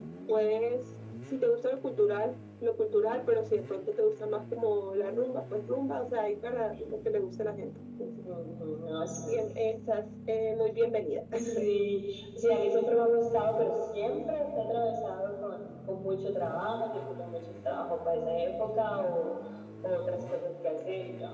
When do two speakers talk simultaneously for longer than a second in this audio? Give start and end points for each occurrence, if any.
none

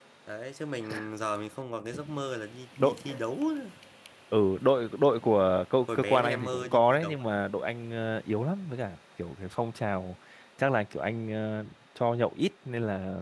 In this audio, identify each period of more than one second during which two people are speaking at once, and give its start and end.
5.8-7.2

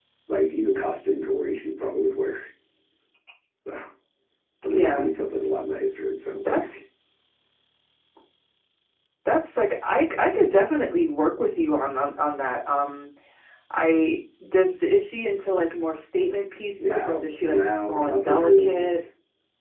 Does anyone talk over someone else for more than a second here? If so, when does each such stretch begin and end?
16.9-19.0

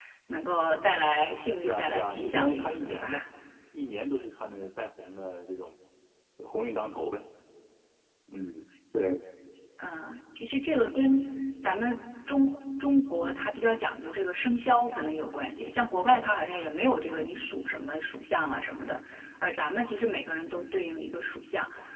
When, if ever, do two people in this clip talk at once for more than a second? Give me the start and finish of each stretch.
1.6-3.2

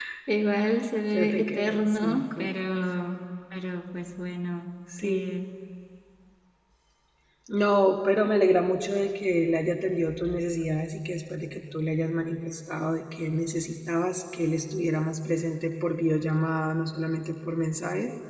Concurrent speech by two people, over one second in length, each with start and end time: 1.1-2.5

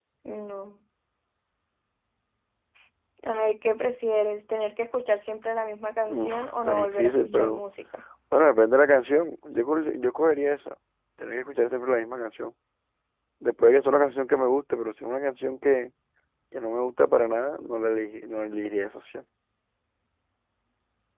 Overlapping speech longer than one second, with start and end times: 6.0-7.6

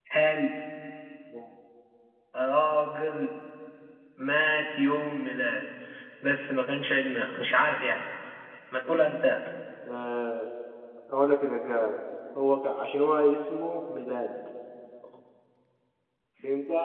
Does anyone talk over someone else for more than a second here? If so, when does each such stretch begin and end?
none

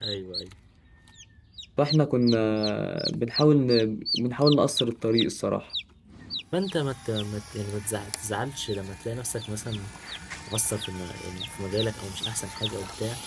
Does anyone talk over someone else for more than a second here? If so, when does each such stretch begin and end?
none

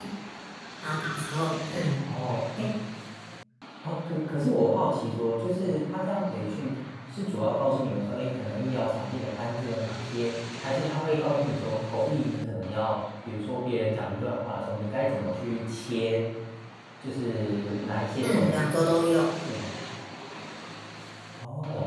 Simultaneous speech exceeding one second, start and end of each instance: none

